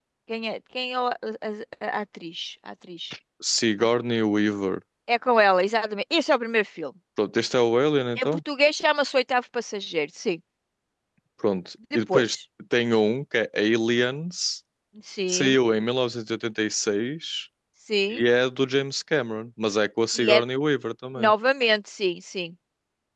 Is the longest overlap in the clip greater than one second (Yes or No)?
No